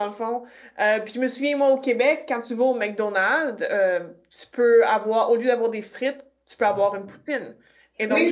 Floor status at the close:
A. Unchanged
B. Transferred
B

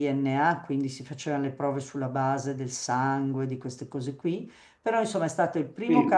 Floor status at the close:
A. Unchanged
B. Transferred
A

